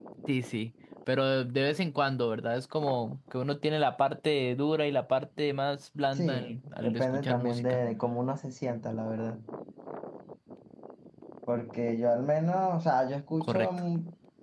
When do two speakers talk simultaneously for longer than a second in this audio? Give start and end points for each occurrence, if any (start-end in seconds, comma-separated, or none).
6.2-7.8